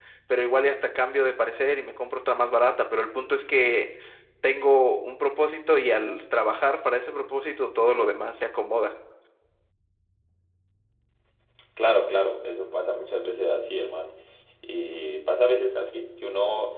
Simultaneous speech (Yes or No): No